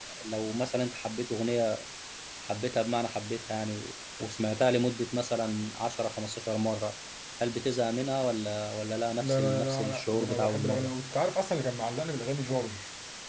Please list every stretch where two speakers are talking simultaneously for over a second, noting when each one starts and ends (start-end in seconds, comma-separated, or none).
9.2-10.9